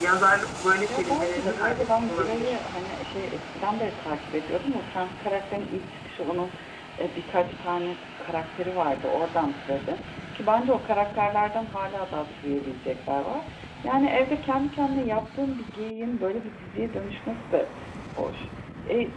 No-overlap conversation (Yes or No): No